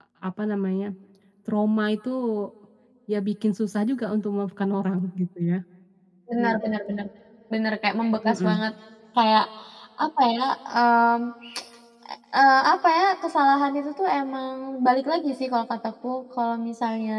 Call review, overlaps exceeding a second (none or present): none